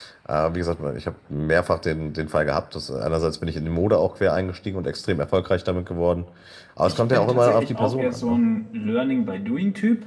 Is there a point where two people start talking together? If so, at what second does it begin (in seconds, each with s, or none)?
6.9 s